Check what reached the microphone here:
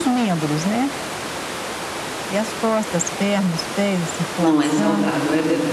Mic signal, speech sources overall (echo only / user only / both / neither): both